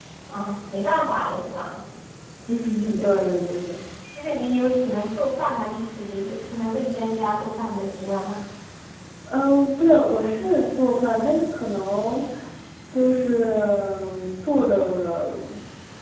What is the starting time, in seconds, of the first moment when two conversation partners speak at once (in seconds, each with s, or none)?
none